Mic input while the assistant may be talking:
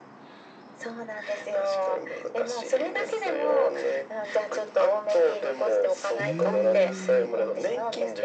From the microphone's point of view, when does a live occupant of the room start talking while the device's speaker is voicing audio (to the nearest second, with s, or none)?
6 s